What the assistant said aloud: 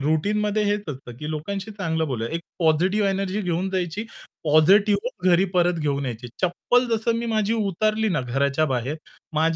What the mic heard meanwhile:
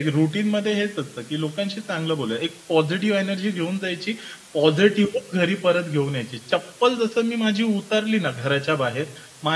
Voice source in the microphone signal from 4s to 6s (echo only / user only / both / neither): echo only